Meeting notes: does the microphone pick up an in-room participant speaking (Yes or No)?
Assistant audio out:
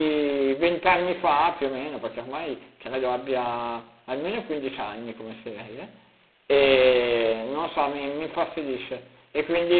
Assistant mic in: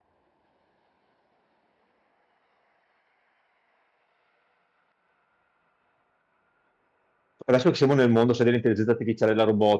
Yes